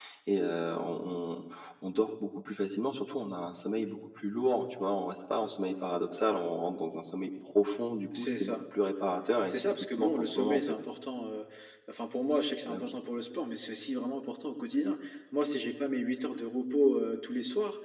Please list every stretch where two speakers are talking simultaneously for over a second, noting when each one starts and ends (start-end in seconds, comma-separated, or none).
9.5-10.7